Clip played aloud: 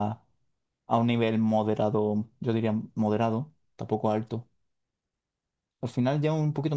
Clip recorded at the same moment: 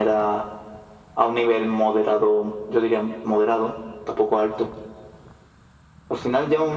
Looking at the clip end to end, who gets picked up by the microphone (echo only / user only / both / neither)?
echo only